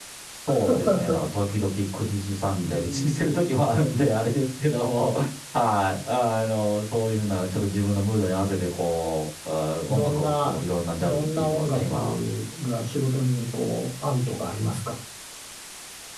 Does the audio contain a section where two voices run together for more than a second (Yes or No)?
Yes